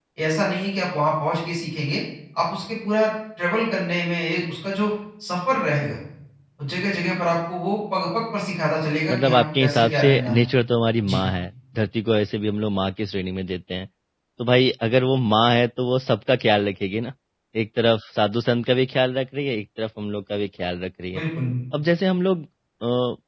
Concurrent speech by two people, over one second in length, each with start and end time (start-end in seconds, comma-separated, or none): 9.1-10.4